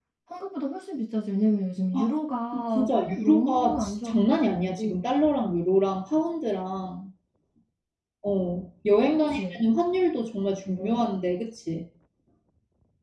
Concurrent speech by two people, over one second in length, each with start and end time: 2.8-5.0

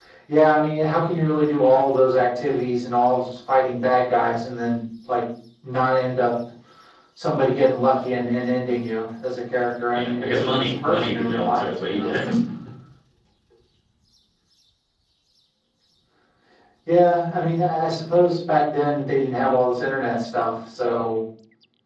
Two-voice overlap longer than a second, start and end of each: 9.9-12.2

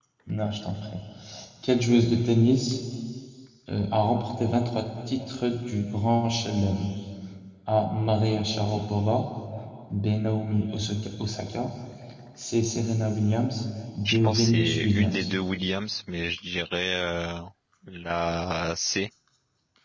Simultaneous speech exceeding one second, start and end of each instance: 14.1-15.3

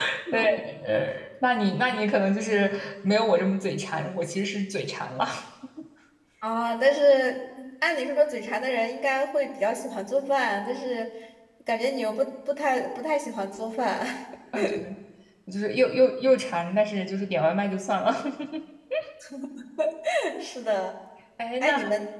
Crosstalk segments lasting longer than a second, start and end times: none

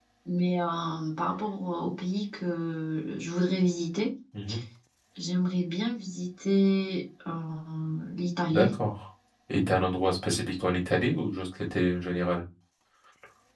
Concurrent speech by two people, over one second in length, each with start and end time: none

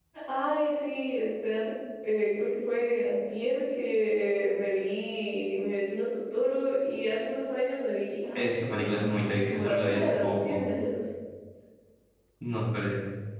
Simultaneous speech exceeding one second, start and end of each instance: 8.3-10.6

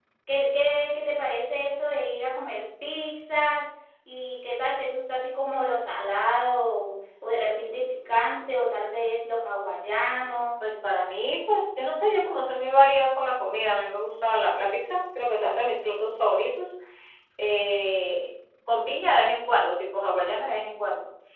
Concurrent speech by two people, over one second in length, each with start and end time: none

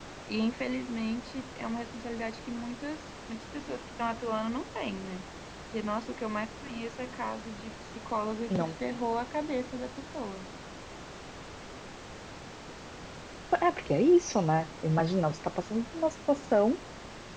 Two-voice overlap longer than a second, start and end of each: none

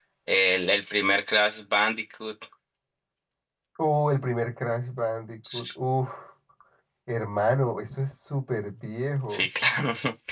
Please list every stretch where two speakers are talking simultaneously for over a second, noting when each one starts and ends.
none

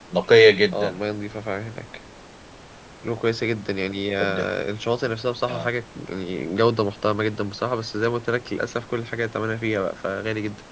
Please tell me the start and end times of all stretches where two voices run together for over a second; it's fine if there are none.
none

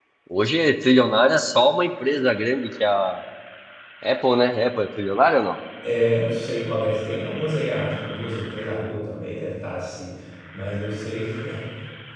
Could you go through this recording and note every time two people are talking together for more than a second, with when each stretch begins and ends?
none

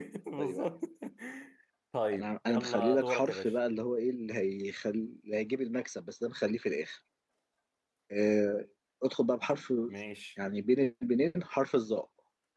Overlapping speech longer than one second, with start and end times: 2.1-3.5

